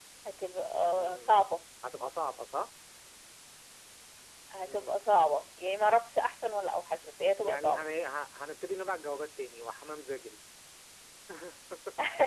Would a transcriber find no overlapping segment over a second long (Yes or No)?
Yes